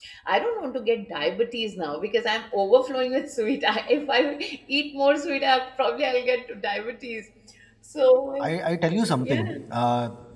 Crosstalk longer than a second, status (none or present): none